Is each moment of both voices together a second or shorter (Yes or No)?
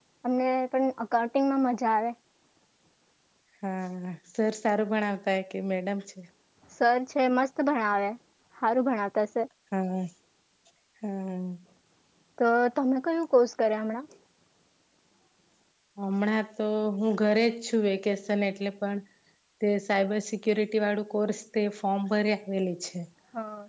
Yes